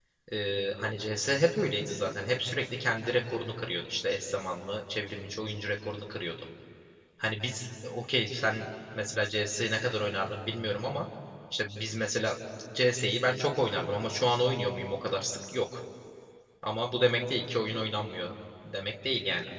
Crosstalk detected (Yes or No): No